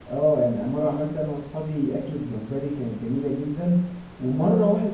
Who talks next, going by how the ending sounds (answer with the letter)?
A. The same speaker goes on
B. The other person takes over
A